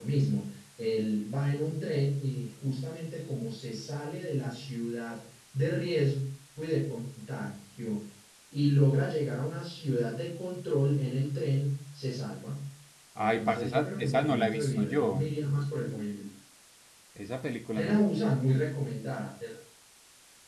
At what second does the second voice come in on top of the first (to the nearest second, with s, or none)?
13 s